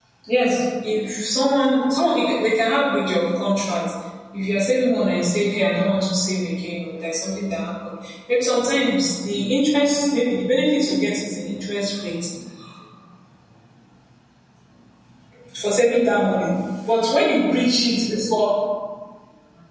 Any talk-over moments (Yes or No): No